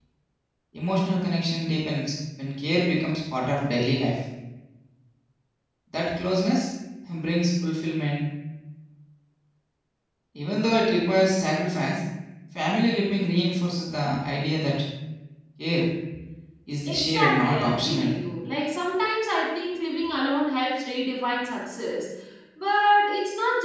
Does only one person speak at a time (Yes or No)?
No